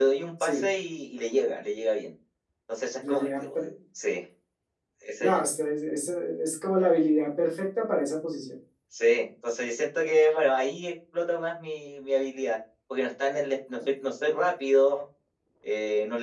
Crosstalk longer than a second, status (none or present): none